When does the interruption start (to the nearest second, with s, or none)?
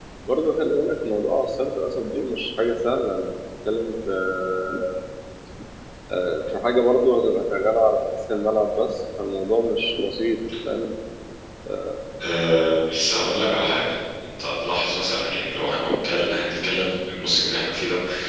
none